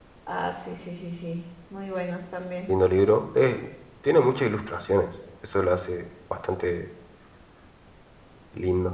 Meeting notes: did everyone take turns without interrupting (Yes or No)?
Yes